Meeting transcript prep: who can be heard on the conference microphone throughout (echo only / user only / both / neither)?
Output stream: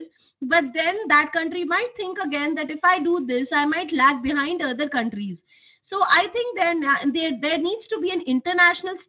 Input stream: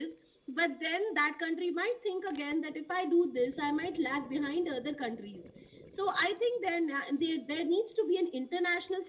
echo only